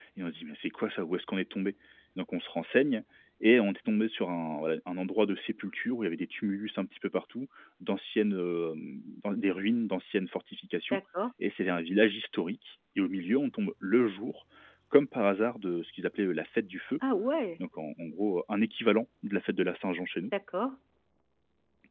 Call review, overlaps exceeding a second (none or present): none